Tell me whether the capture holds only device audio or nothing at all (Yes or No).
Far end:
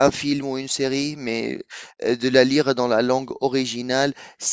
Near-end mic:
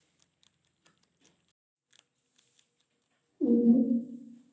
No